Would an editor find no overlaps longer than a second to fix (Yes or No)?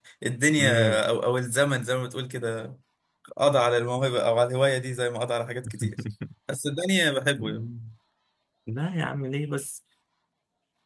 Yes